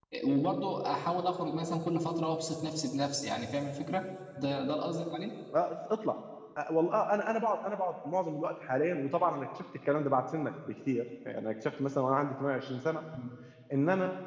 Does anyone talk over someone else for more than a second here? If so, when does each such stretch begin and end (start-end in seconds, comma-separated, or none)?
none